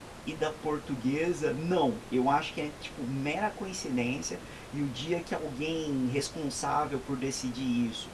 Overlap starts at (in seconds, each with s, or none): none